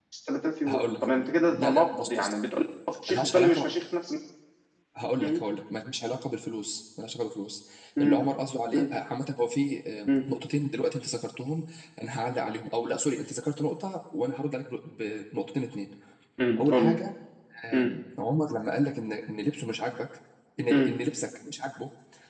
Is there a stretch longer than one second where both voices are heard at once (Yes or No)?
Yes